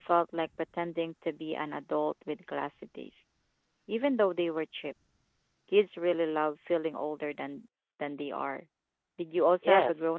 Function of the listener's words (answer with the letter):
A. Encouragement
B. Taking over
B